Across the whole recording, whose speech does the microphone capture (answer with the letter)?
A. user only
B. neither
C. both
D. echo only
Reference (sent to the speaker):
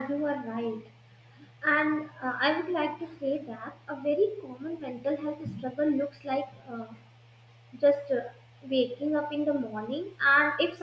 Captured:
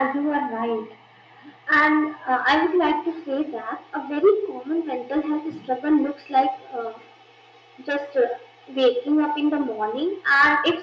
D